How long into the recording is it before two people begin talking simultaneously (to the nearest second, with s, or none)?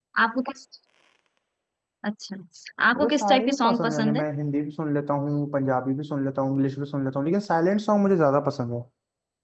3 s